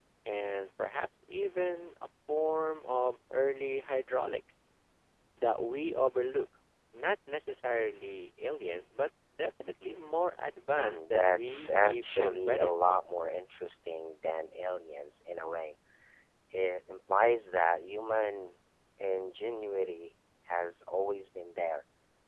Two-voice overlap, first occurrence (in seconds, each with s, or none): 10.8 s